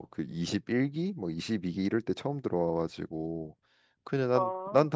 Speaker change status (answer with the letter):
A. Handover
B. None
B